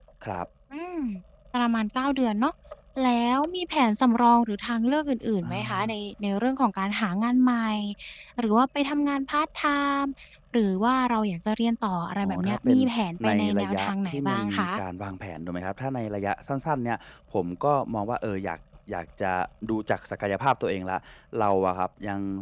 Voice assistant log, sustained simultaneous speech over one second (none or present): present